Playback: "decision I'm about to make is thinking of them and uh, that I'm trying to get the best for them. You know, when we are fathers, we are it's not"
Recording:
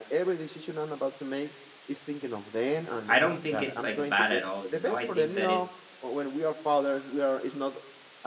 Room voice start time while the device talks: 3.1 s

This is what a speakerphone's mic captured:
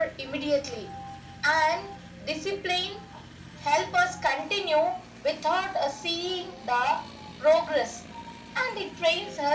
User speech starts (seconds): none

